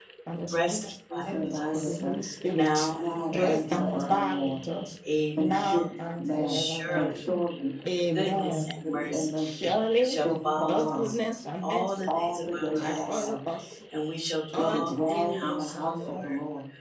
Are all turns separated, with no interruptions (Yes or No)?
No